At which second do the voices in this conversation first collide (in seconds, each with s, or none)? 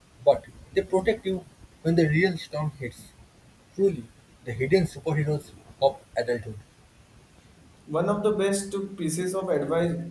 none